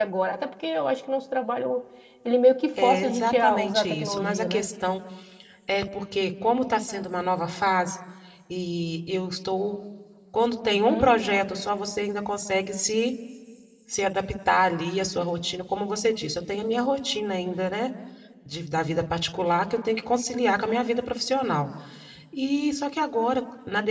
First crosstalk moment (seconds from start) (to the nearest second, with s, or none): 3 s